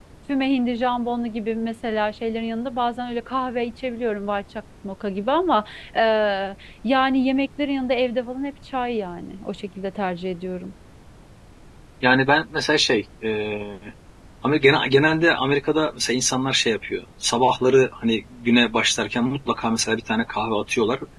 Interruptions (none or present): none